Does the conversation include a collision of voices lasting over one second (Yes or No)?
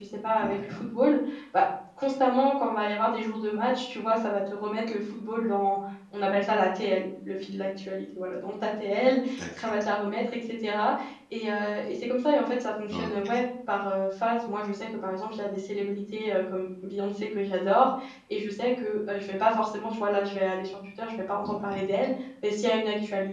No